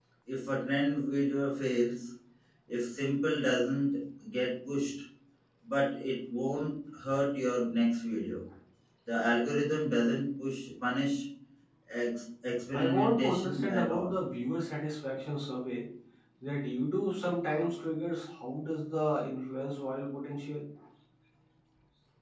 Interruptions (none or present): present